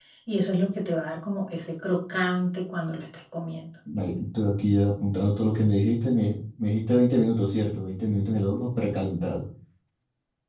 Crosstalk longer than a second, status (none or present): none